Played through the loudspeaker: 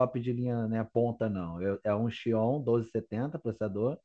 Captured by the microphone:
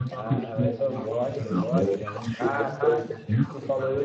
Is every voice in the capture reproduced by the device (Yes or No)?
No